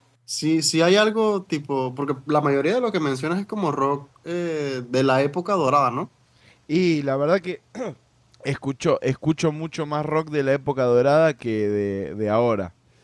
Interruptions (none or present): none